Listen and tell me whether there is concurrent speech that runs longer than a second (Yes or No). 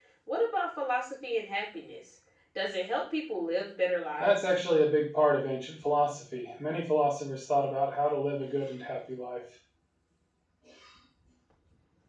No